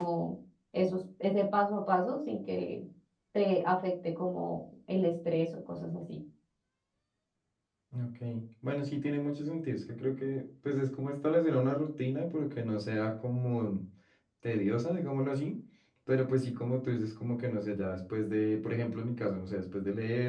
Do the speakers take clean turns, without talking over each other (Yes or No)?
Yes